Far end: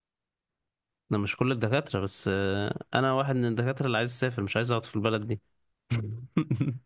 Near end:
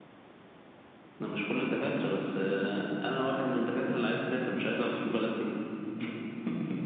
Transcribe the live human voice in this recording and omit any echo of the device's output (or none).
none